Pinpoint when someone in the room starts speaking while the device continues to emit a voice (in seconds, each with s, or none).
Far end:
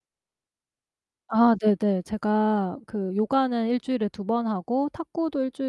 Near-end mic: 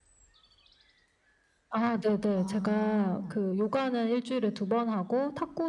2.3 s